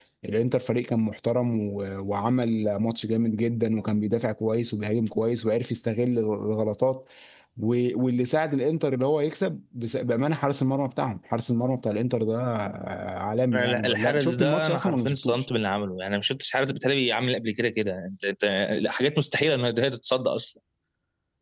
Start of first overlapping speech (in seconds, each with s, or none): 13.5 s